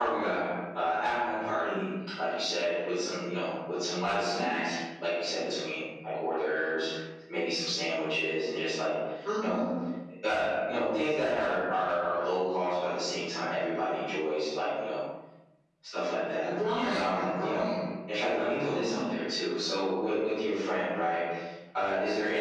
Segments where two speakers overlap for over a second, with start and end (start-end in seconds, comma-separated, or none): 16.4-17.6